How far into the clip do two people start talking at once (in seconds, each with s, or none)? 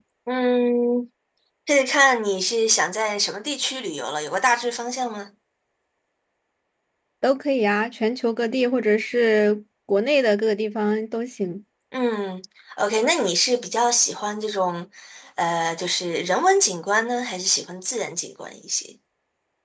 none